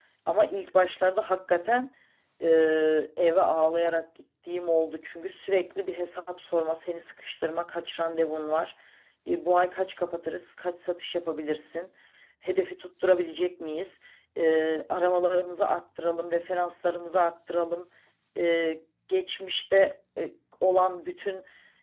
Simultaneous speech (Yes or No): No